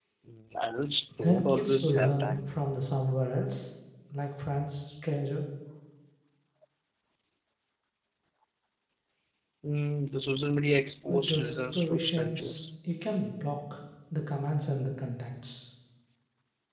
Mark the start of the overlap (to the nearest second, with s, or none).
1 s